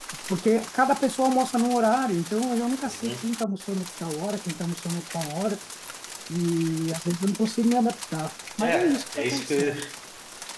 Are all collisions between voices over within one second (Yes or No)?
No